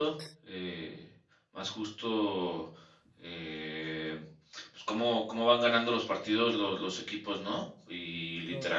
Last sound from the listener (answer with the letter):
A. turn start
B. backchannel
B